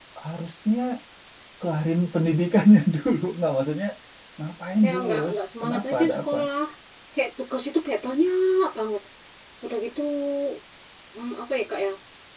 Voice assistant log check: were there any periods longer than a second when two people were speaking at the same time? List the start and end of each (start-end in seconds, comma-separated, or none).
4.8-6.4